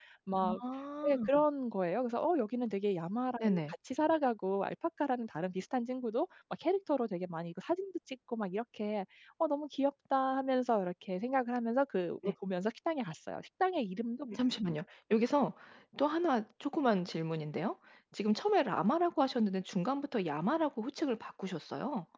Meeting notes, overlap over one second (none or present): none